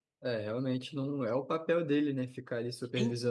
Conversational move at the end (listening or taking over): taking over